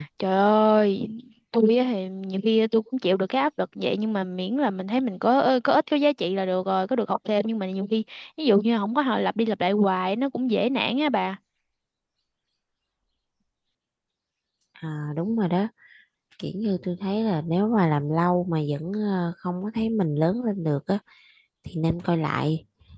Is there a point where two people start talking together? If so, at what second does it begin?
none

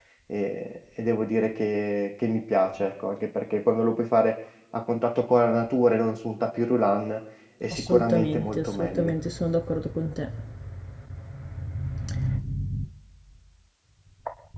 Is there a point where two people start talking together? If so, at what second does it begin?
7.7 s

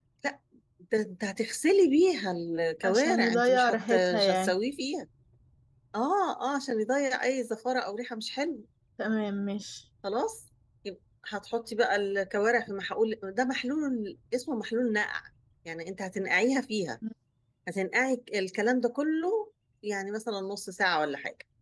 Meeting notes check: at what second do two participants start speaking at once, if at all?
2.8 s

